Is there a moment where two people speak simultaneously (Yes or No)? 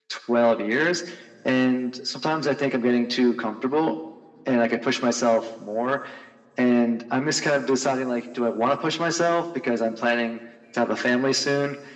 No